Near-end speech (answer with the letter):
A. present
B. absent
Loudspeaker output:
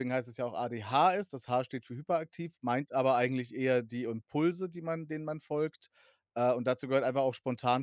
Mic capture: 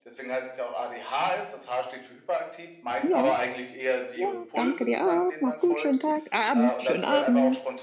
A